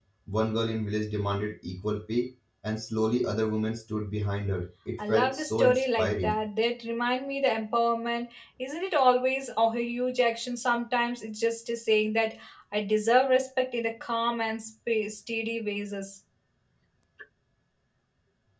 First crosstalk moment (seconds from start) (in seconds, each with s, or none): 5.0 s